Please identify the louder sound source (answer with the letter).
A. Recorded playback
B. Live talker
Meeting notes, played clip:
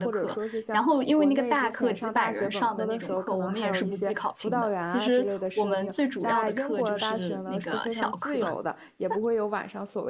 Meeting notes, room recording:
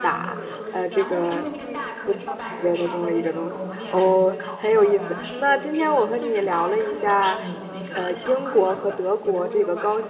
B